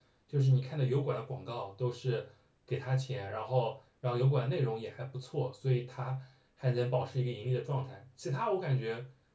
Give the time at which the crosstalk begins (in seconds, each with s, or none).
none